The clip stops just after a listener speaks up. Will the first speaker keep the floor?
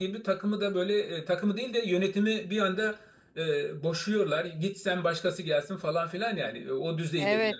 No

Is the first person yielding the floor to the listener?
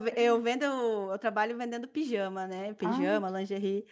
No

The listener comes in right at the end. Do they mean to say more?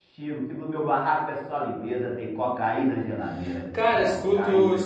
Yes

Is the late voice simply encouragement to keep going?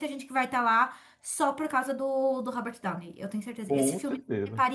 Yes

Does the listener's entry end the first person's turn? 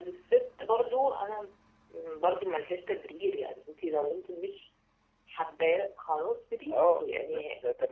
Yes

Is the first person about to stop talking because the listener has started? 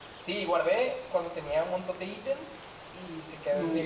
No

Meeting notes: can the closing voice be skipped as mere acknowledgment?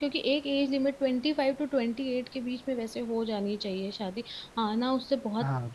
Yes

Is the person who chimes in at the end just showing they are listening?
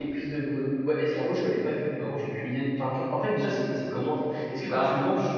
Yes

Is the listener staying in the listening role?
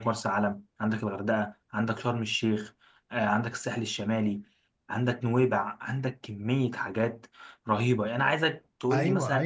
No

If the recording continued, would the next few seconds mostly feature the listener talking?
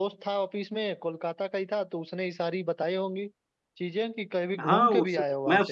Yes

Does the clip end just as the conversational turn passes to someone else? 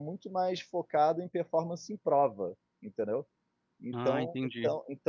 No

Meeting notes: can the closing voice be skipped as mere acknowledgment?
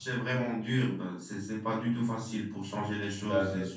Yes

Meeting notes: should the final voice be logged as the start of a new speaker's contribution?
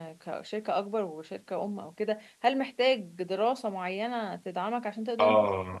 Yes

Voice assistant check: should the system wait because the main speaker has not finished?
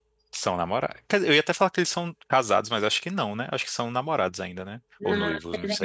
No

